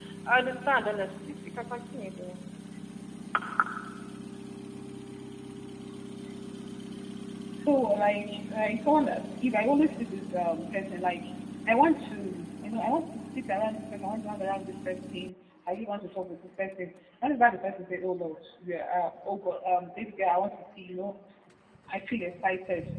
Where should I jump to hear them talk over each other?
none

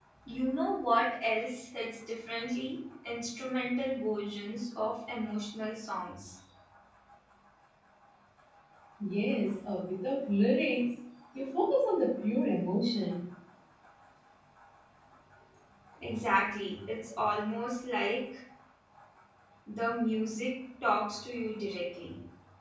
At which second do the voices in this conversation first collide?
none

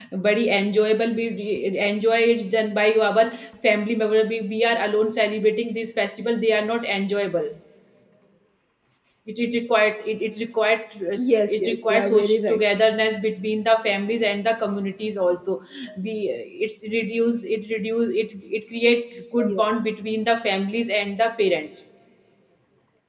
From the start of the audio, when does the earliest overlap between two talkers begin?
11 s

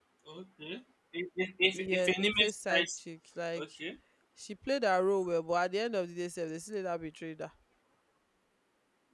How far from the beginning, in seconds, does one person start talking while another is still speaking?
2 s

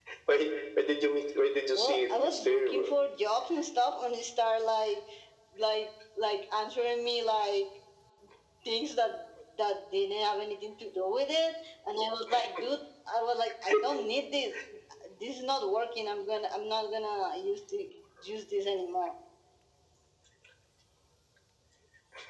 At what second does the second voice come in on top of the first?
2 s

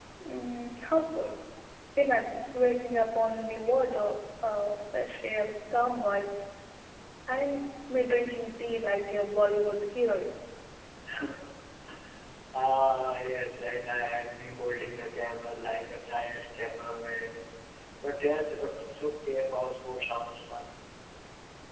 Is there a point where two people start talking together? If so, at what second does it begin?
none

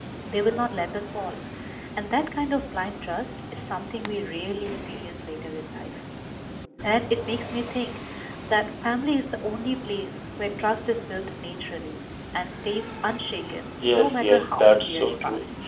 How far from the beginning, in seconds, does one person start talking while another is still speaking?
14 s

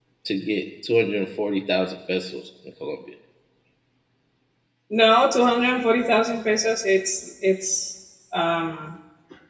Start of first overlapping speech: none

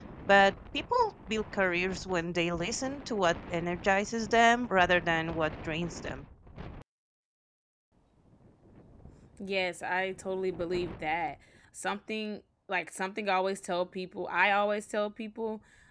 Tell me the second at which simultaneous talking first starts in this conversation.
none

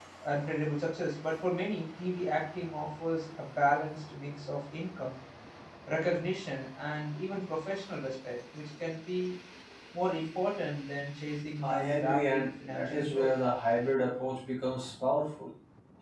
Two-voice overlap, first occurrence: 12 s

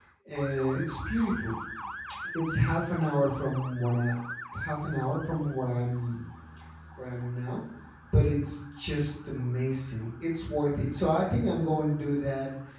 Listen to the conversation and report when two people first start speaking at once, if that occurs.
none

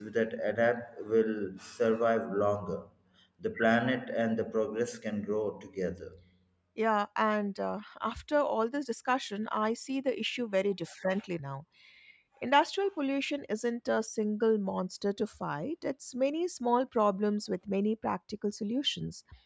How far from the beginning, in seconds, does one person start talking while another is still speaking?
none

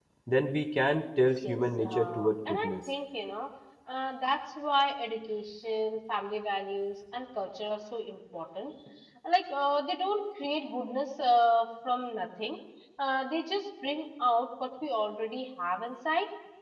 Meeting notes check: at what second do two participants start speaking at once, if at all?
1 s

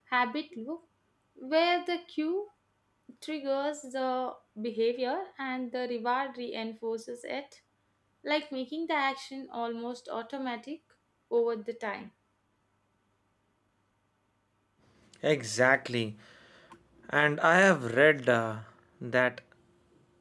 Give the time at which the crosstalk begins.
none

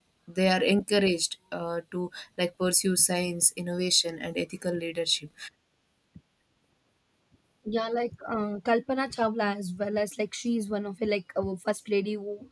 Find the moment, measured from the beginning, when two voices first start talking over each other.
none

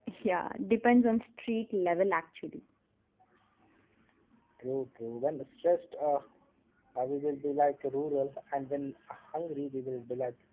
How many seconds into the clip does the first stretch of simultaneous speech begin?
none

